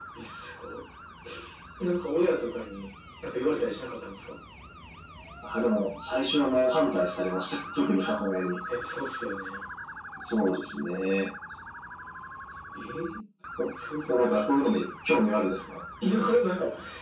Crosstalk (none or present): none